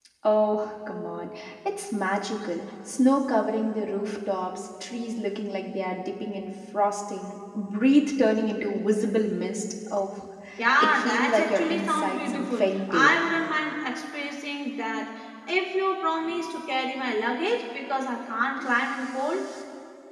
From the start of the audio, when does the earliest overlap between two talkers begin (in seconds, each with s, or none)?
10.8 s